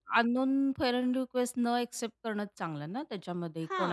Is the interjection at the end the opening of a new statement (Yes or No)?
Yes